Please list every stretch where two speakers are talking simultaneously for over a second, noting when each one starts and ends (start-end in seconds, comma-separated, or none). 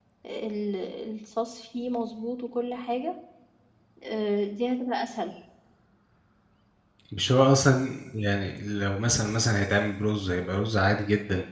none